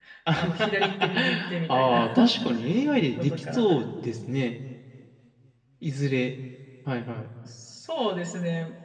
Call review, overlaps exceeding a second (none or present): present